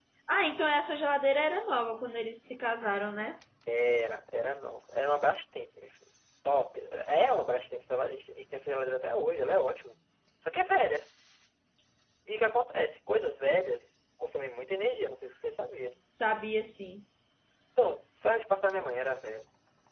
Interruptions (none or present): none